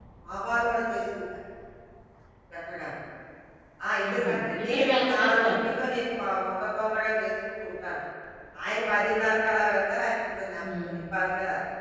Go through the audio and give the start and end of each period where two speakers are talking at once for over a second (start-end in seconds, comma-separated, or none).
4.1-5.6